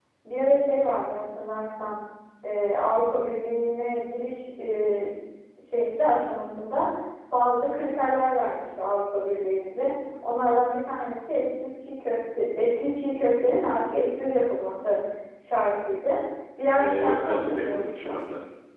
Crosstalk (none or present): present